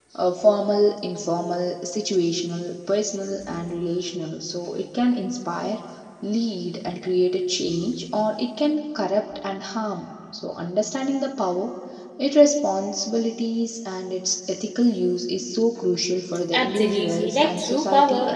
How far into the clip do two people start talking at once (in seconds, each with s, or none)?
16.5 s